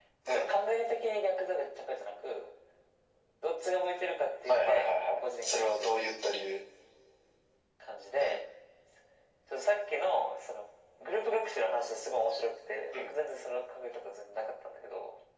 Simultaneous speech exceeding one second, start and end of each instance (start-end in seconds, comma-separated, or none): 4.5-6.1